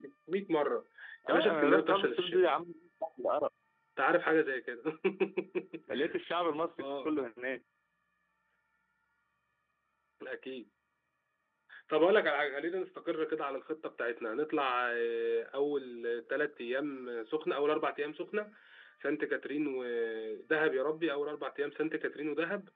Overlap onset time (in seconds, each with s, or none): 1.3 s